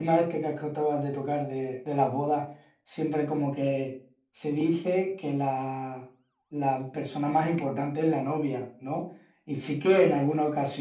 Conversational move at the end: listening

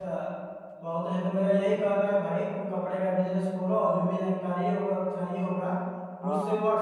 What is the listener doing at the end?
listening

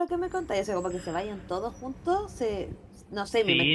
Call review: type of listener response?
taking over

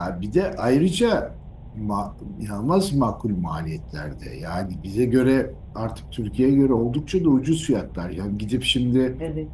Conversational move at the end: listening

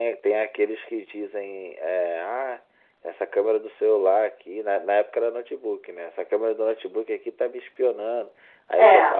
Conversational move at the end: listening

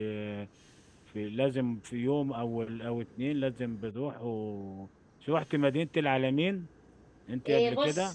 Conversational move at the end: taking over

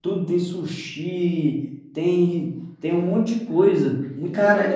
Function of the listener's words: taking over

